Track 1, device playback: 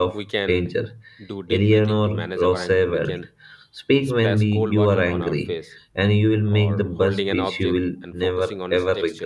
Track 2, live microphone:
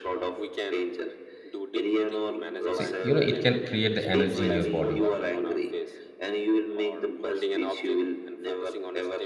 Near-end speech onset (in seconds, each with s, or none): 2.7 s